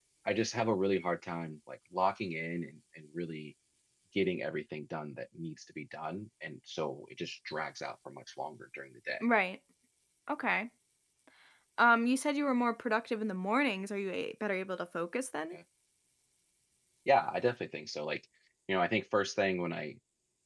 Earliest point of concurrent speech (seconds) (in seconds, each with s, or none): none